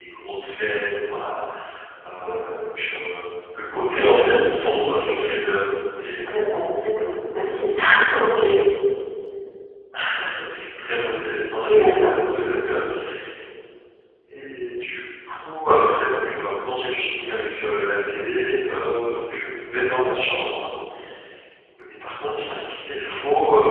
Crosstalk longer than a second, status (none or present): none